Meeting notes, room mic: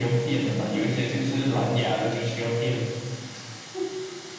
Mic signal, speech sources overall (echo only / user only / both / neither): echo only